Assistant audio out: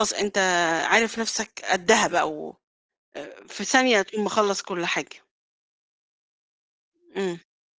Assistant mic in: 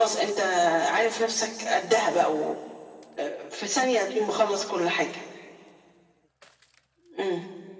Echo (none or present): present